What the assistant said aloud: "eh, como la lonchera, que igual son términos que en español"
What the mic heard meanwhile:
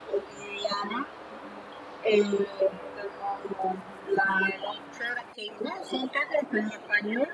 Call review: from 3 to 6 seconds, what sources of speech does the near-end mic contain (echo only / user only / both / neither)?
echo only